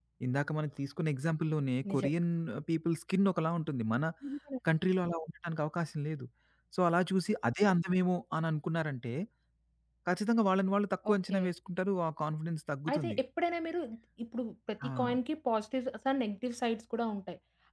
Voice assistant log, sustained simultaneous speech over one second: none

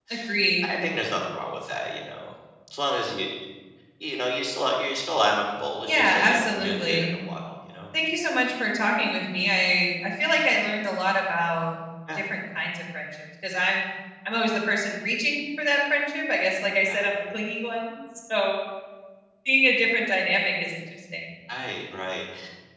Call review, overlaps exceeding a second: present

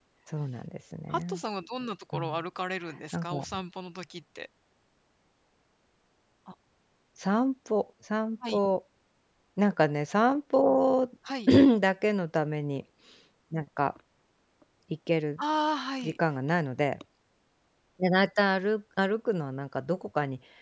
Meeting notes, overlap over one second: none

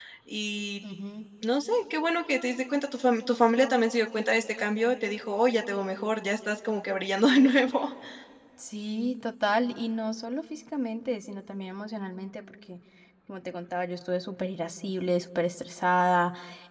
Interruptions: none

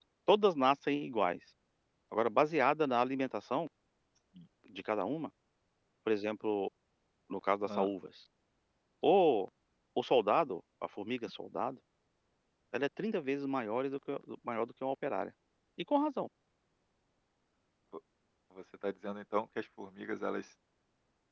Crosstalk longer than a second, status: none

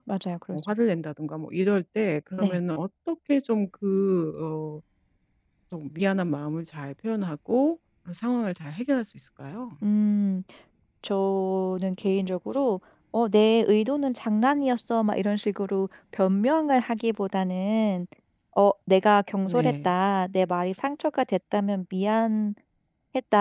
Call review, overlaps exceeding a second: none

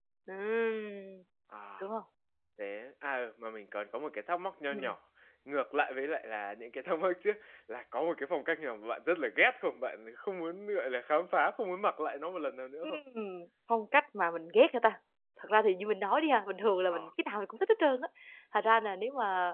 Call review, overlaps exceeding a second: none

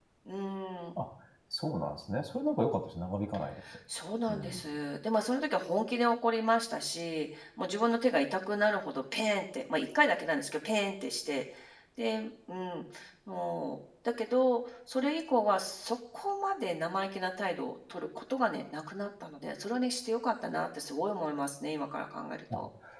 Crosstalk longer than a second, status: none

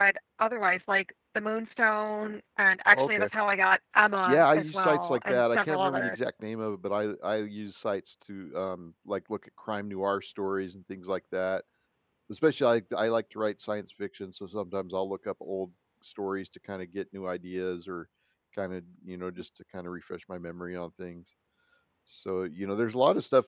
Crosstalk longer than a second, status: present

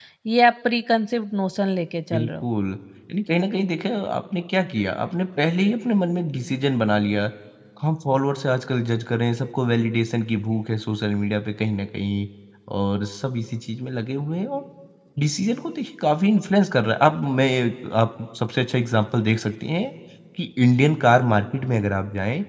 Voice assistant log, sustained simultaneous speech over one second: none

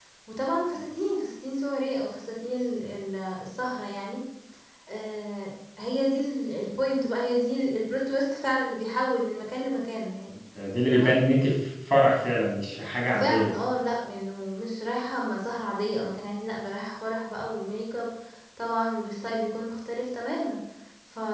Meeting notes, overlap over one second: none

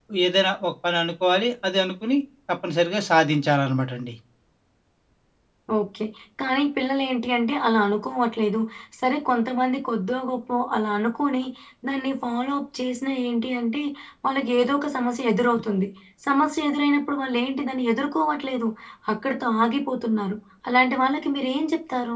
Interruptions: none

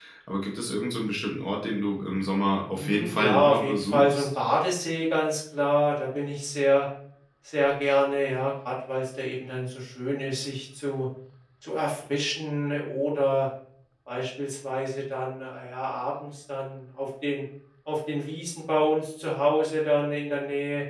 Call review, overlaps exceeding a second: present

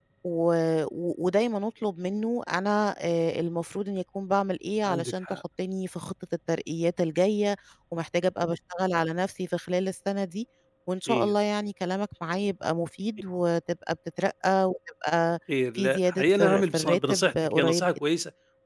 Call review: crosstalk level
present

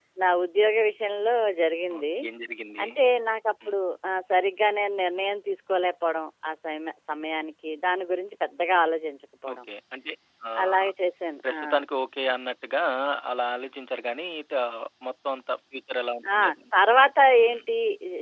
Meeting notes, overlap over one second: none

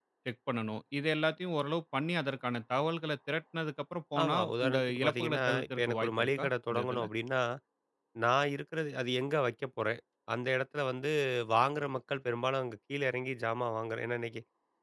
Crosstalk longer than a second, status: present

